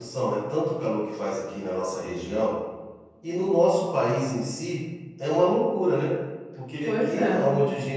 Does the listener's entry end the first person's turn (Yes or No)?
No